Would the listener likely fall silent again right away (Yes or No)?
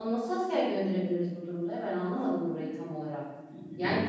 Yes